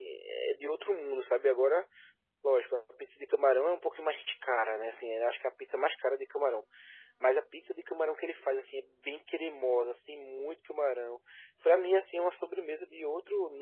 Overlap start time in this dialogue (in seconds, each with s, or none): none